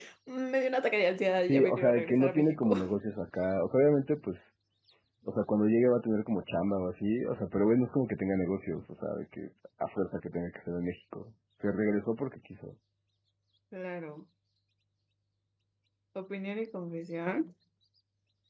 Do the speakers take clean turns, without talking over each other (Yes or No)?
No